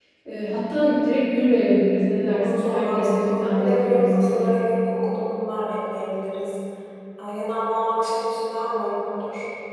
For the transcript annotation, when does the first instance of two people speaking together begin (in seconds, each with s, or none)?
2.3 s